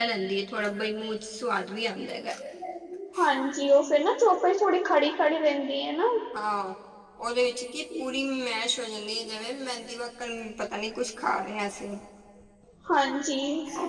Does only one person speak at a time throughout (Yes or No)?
Yes